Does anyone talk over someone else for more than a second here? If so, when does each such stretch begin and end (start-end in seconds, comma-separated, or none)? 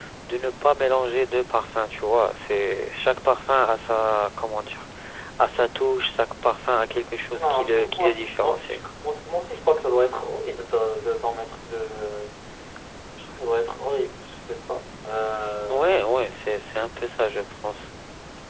7.3-8.8